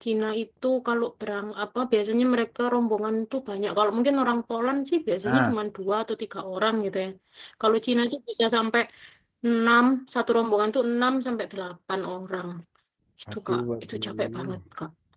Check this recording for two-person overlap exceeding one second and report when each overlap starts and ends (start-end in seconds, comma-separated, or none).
13.3-14.6